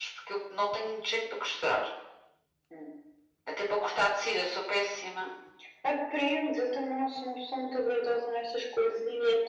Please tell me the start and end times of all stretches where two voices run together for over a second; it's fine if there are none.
none

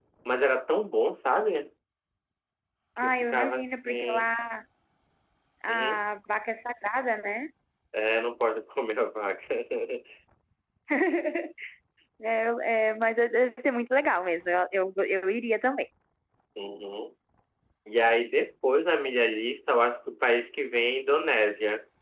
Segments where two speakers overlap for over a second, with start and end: 3.0-4.3

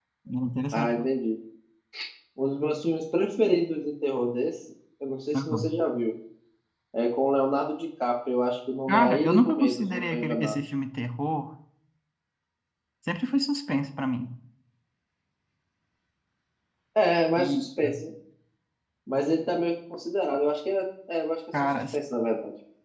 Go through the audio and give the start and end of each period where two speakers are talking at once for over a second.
8.9-10.6

